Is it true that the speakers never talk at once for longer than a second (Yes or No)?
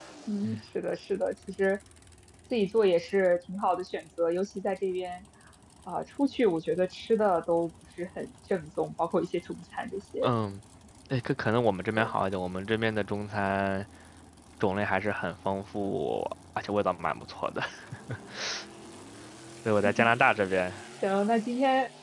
Yes